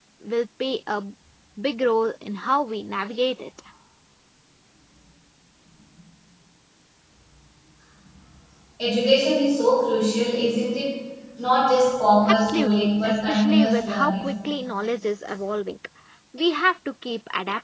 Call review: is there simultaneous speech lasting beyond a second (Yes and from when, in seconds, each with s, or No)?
Yes, from 12.2 s